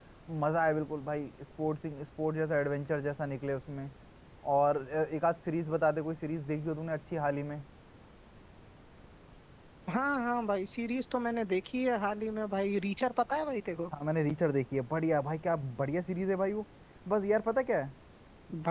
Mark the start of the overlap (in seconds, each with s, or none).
none